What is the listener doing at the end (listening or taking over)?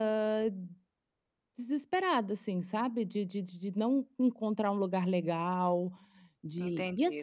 taking over